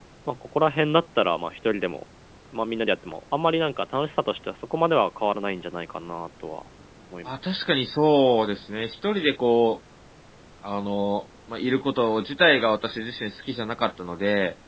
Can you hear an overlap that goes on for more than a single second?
No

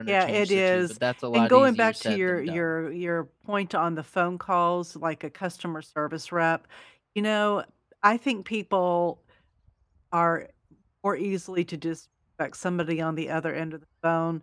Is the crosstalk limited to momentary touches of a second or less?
No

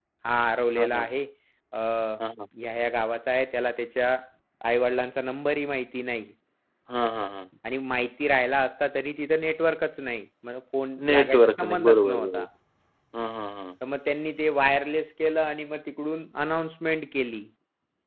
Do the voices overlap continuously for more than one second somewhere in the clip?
Yes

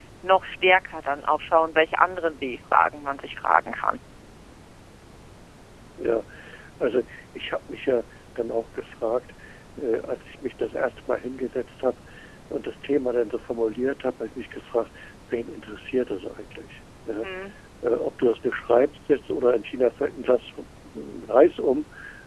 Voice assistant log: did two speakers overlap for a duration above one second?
No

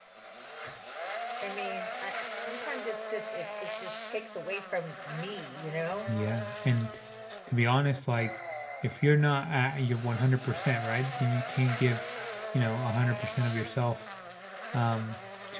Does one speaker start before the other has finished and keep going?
No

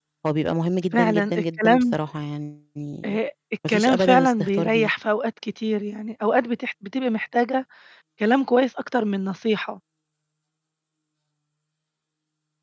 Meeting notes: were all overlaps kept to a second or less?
No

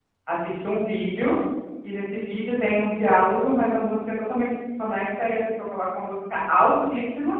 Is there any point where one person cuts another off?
No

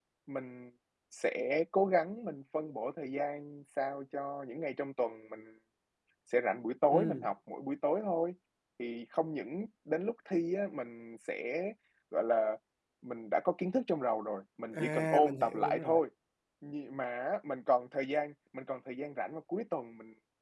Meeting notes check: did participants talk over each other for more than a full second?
Yes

